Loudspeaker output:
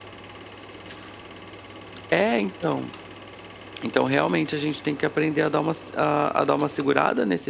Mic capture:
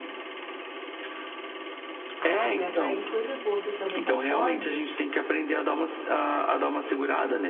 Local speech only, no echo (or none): Ah, para atrair coisas boas, eu também concordo.